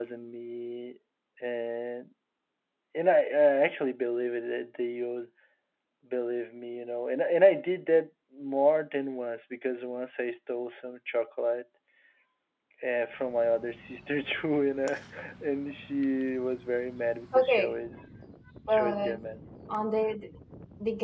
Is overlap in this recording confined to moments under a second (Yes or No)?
Yes